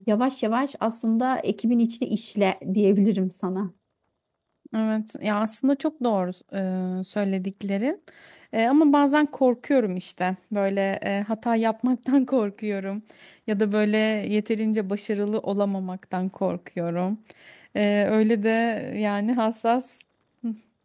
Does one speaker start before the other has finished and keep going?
No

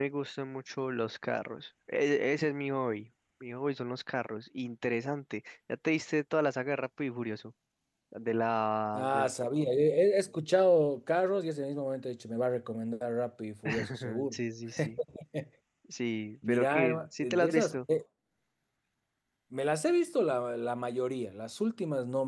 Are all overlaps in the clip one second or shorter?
No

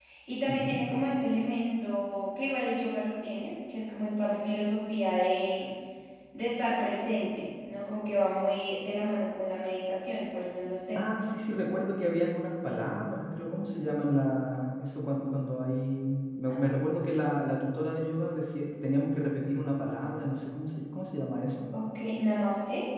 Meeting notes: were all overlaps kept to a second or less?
Yes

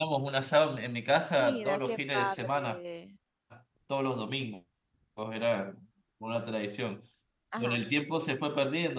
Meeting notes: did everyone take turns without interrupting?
No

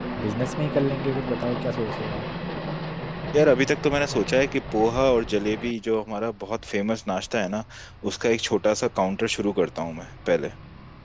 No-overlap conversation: Yes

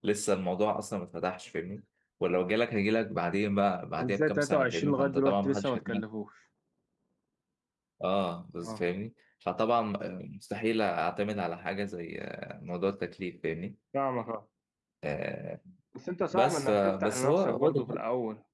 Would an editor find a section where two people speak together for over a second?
Yes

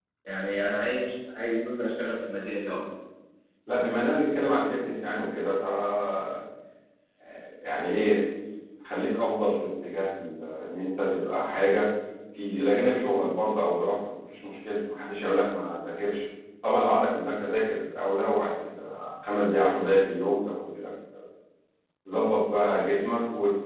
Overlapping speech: No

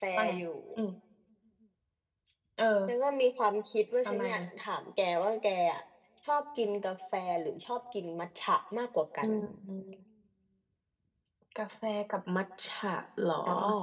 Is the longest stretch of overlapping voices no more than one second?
Yes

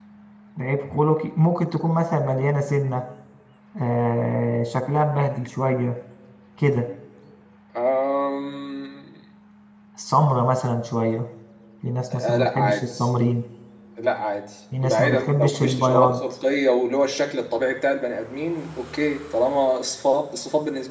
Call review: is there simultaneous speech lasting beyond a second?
Yes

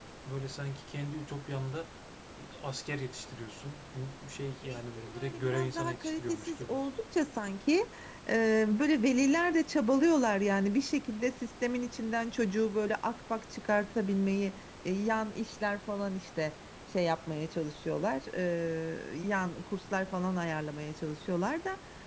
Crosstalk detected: Yes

